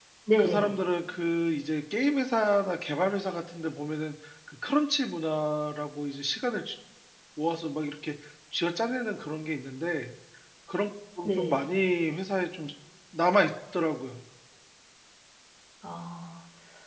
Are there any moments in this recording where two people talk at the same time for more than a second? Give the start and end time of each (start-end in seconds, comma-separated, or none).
none